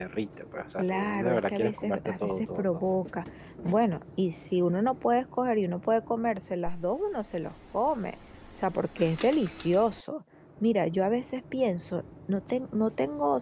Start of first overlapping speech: 1 s

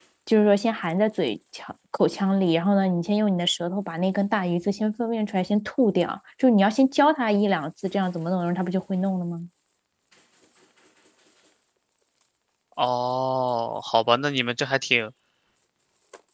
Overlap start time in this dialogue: none

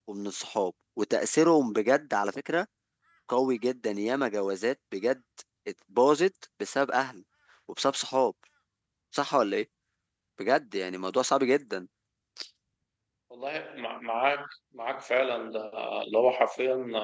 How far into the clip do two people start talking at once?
none

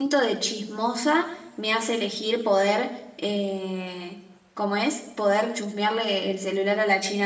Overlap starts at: none

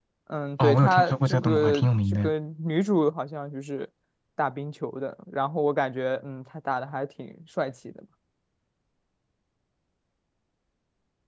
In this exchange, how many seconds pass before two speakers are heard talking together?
1 s

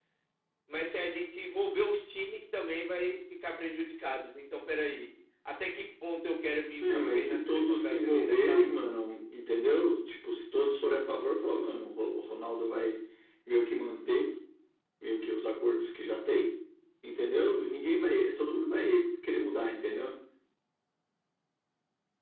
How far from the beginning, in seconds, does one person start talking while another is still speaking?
7 s

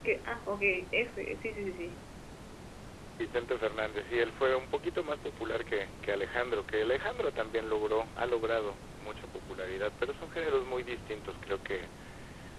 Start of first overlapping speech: none

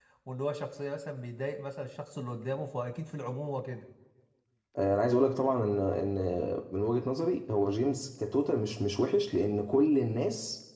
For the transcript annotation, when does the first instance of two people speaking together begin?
none

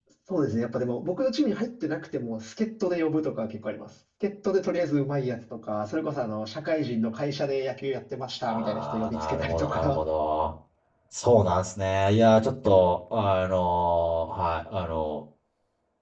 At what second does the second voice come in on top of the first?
8 s

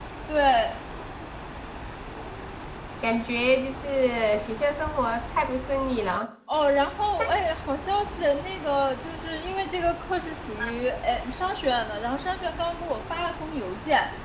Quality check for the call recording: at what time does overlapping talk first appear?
none

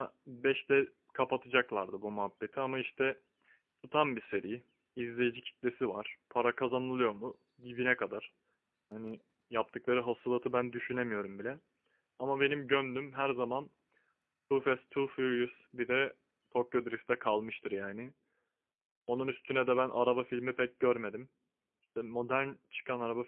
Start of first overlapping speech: none

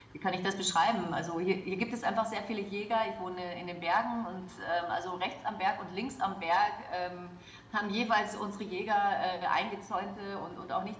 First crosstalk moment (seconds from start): none

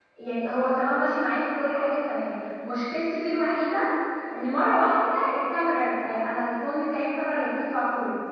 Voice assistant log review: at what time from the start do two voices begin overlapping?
none

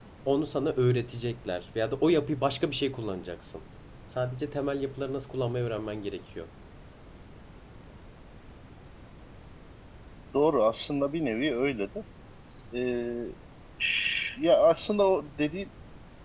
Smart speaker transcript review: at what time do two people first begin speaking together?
none

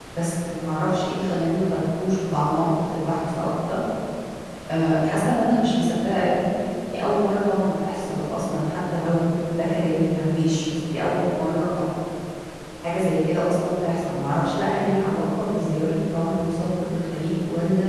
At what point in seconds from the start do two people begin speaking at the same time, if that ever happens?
none

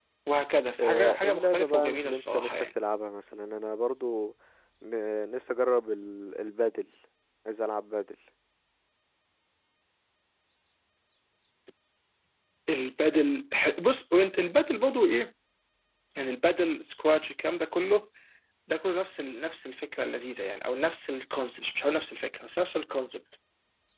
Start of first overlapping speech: 1 s

